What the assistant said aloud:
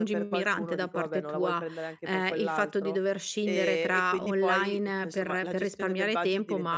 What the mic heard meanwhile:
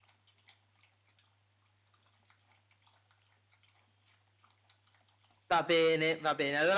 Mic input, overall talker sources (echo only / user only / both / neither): user only